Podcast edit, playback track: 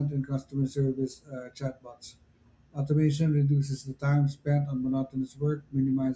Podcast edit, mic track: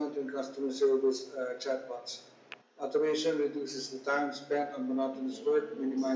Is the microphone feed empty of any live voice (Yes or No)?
No